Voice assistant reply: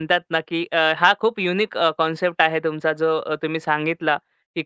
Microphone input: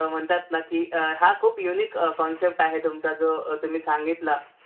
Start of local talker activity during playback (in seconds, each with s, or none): none